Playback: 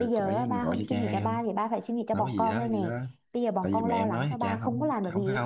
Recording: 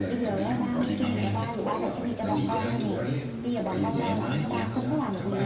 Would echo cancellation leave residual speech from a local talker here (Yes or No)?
Yes